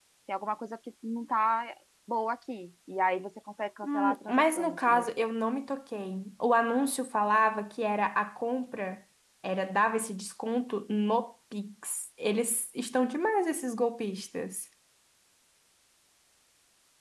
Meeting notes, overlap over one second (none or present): present